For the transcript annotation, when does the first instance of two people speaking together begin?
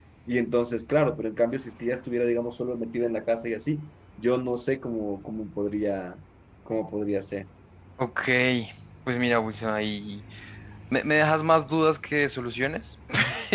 none

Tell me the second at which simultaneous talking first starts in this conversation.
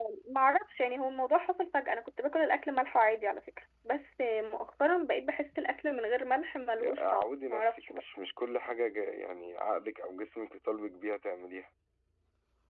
7 s

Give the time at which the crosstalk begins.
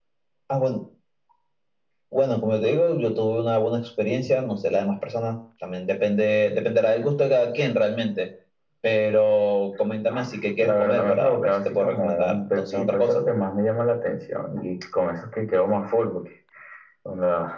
10 s

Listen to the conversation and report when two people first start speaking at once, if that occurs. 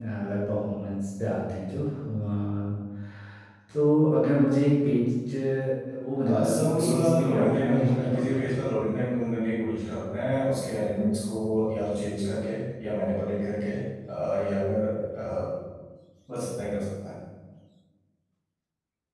6 s

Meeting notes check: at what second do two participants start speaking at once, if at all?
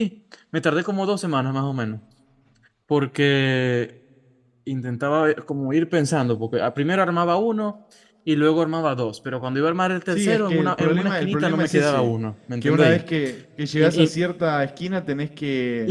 10 s

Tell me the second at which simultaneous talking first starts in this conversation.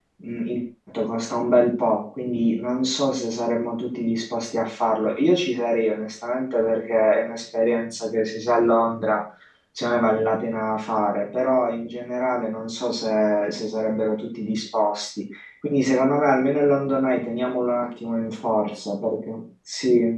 none

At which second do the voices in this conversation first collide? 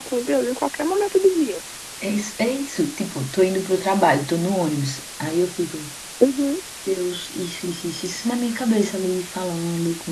none

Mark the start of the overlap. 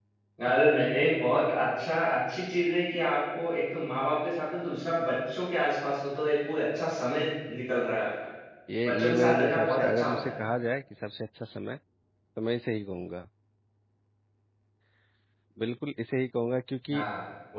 9 s

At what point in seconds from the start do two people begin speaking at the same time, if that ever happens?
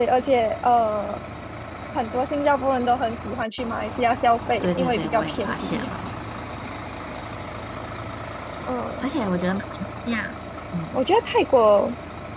5 s

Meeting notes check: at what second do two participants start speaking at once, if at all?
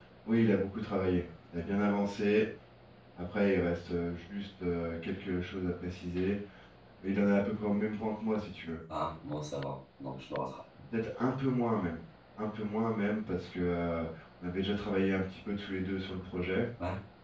none

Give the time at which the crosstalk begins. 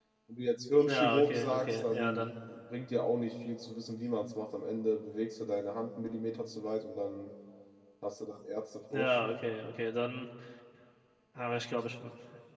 1 s

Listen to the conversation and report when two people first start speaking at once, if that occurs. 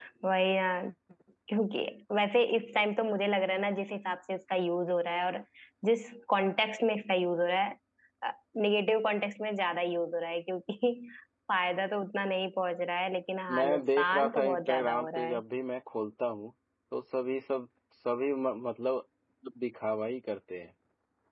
13 s

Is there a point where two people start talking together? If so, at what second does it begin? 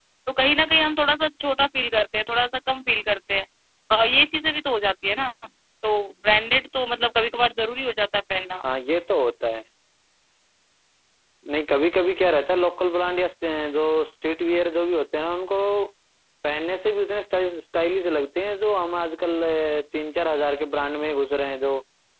none

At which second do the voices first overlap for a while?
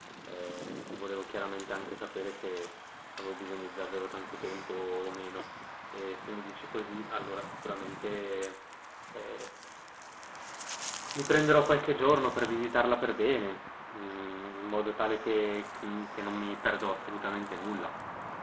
none

